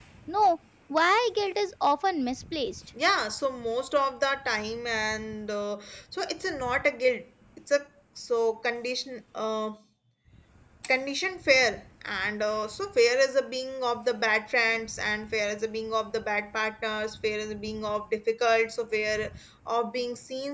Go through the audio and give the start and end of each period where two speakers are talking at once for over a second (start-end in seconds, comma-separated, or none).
none